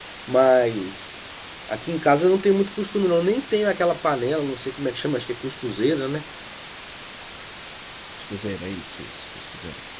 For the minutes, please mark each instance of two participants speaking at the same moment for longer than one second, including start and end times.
none

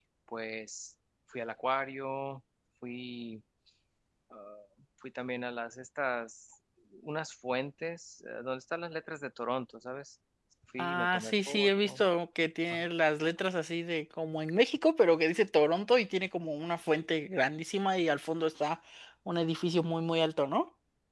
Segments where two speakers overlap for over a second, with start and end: 10.8-12.0

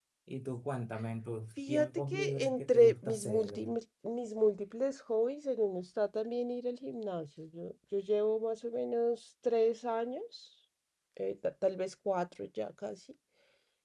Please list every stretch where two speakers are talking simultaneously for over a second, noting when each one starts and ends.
1.6-3.8

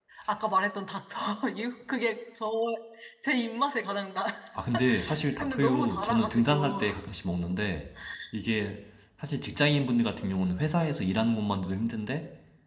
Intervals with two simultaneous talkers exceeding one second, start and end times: 5.4-6.8

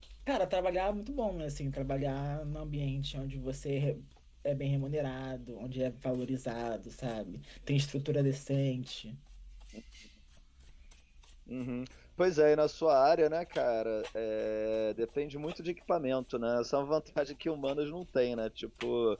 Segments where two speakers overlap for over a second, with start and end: none

